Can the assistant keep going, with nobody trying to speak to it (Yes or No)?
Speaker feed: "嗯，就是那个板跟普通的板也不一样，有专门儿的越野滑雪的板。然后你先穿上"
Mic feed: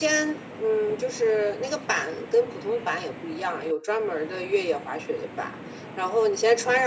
Yes